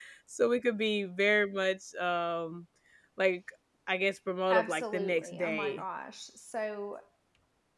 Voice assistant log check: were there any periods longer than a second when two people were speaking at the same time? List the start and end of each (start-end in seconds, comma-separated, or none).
4.5-5.8